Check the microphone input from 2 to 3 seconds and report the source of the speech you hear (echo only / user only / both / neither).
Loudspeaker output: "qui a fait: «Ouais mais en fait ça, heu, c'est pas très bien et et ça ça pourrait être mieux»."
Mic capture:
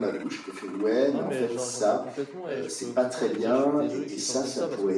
both